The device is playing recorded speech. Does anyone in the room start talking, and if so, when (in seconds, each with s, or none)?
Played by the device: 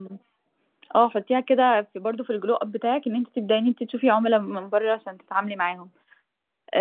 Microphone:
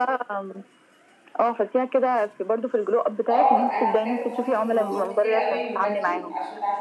3.3 s